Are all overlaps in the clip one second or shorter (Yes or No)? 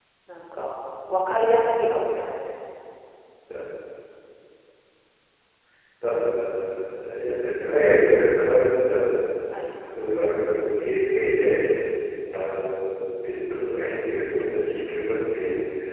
Yes